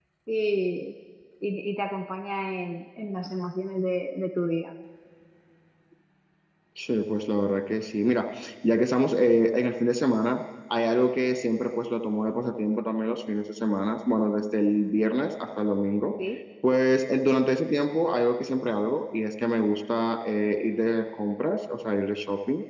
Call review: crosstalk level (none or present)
none